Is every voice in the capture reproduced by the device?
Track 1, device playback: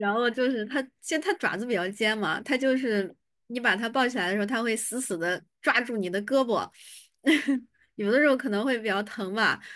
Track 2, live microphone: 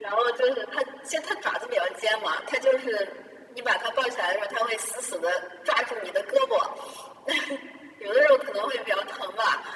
Yes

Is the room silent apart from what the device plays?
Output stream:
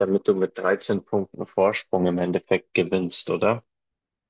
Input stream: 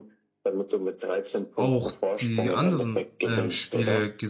No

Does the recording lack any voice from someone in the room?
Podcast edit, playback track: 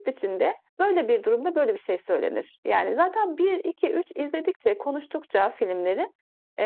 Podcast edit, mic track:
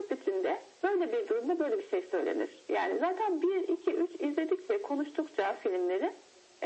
Yes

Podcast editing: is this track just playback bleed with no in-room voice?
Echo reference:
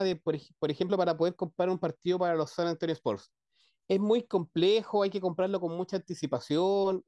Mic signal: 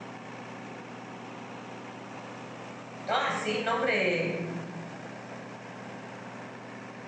No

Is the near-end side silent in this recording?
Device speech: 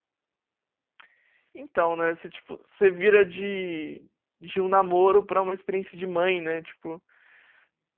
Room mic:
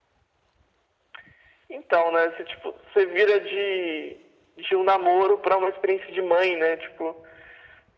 Yes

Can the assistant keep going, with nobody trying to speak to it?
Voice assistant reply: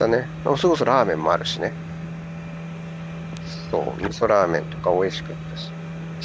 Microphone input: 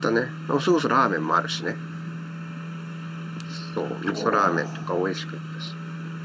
No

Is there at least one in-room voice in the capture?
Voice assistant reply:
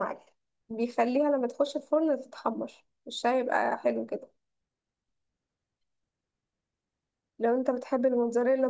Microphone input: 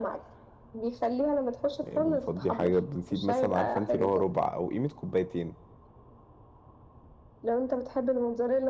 Yes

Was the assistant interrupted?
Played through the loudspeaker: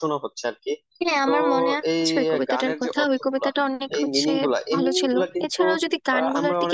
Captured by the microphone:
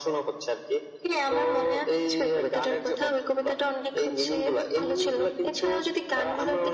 No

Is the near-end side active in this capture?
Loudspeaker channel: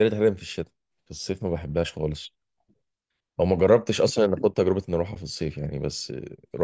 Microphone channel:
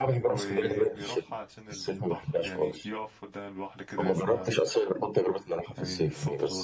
Yes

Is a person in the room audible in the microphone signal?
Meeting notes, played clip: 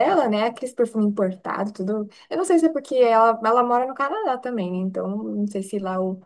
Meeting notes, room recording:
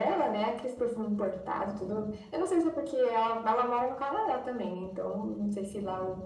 No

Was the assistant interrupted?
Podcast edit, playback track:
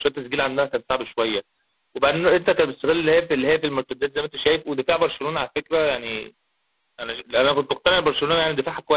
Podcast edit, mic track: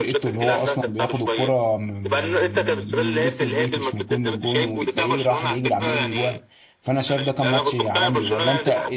Yes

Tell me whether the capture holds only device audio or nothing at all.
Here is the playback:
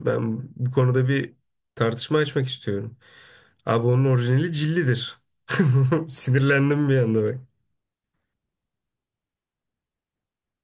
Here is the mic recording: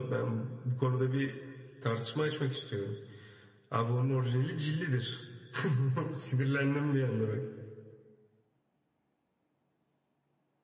Yes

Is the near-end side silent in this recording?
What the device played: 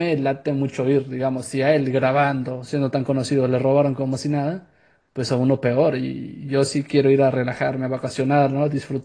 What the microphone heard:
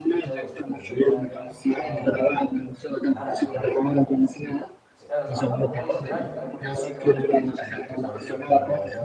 No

